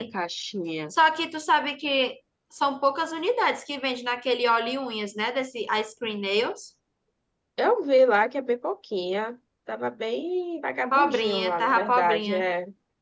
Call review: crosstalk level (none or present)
present